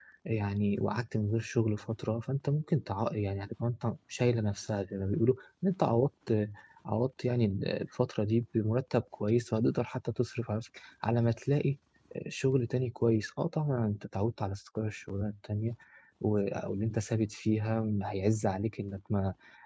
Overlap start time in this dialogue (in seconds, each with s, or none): none